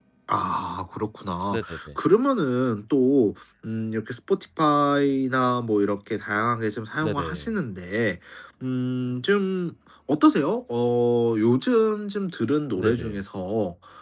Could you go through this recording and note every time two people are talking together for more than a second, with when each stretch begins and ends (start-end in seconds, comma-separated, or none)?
none